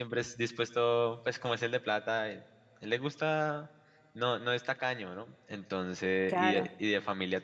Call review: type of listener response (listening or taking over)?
listening